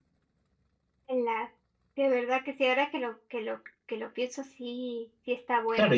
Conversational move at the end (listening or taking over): taking over